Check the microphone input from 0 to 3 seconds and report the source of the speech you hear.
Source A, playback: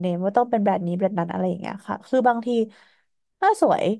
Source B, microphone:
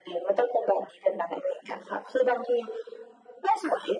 echo only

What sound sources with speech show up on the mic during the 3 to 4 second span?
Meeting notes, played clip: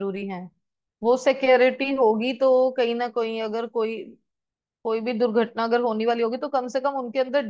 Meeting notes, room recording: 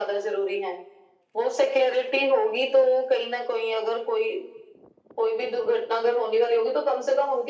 echo only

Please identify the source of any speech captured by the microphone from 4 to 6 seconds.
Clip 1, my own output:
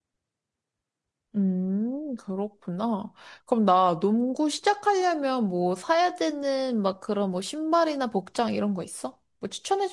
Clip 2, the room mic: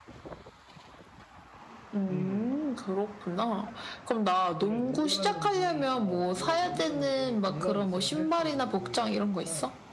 both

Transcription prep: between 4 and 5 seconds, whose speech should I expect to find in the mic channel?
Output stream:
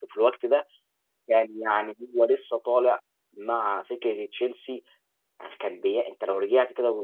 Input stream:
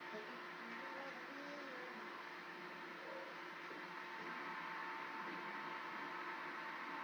neither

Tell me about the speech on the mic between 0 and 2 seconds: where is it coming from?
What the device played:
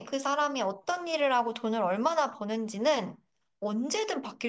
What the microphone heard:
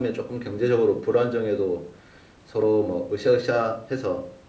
user only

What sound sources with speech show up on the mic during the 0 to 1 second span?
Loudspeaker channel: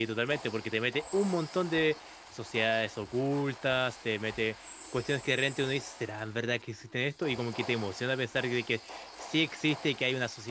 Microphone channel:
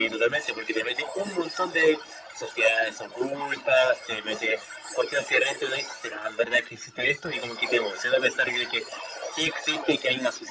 echo only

